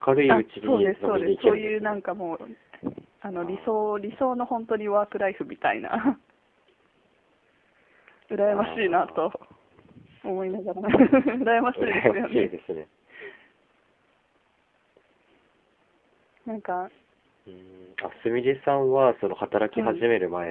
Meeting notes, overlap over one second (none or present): present